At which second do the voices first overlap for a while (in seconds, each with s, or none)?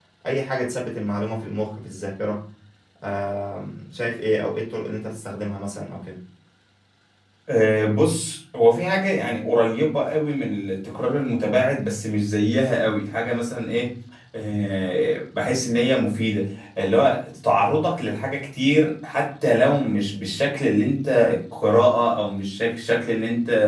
none